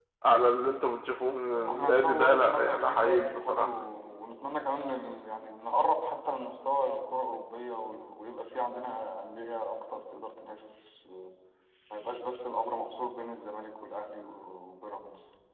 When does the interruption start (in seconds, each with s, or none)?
1.5 s